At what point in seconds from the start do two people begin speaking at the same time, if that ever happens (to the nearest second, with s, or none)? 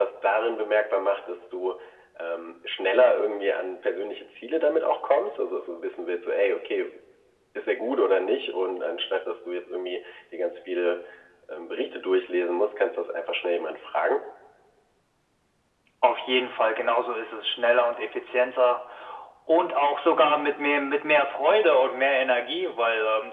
none